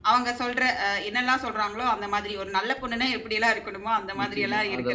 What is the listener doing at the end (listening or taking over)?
taking over